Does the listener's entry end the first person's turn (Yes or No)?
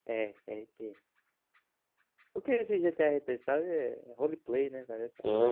Yes